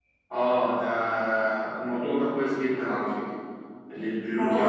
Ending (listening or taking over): listening